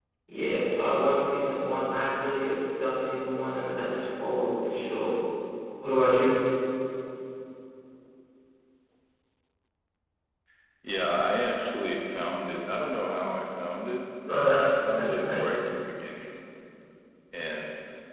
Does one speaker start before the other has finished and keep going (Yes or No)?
Yes